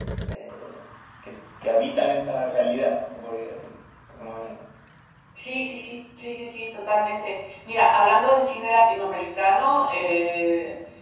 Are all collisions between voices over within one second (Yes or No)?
Yes